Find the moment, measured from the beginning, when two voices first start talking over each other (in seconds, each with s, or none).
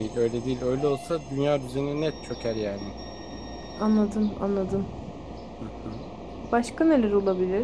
none